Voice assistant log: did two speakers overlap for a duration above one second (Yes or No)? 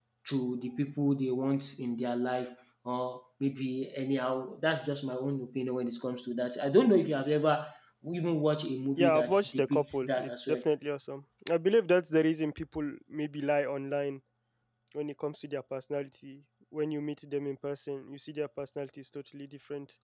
Yes